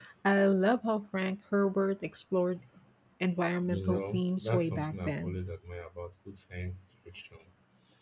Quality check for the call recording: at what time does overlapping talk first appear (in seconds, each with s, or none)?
3.7 s